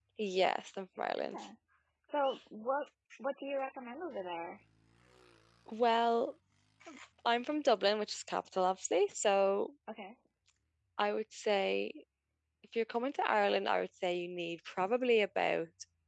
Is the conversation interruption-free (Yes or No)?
Yes